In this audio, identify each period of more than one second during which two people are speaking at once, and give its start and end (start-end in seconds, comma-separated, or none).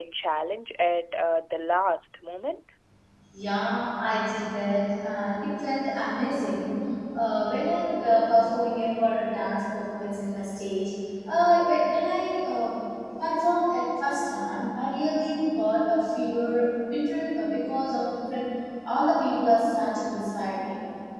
none